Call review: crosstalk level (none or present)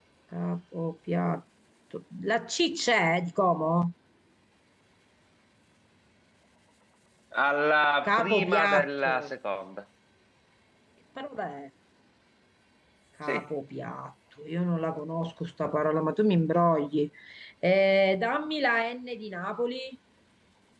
present